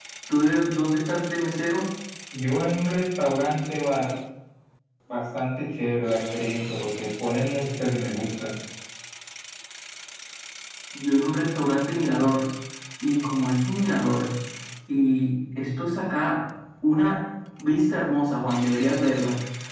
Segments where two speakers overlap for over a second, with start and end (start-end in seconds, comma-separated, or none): none